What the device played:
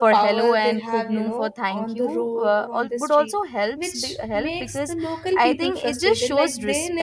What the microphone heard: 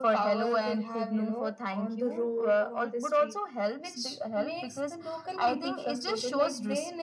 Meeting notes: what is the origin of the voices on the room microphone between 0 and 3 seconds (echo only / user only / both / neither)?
echo only